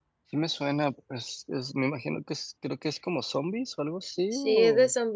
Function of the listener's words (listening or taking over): taking over